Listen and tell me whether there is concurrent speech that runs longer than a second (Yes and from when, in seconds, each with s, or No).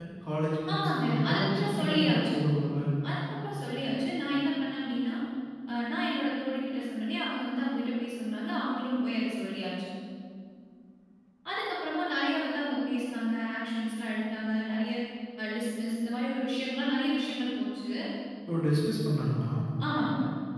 Yes, from 0.7 s